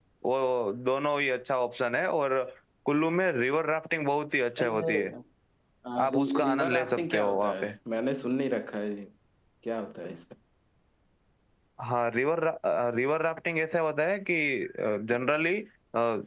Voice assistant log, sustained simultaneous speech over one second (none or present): present